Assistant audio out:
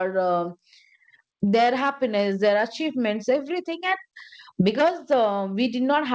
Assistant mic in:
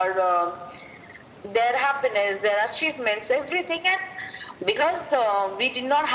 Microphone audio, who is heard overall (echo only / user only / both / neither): echo only